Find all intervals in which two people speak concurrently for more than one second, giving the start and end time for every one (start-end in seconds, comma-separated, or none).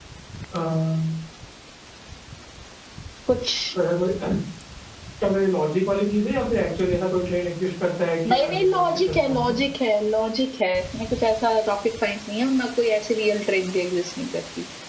8.3-9.6